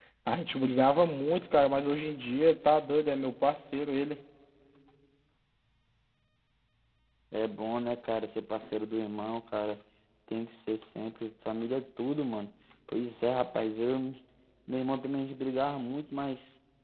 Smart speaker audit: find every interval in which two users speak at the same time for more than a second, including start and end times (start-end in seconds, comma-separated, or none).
none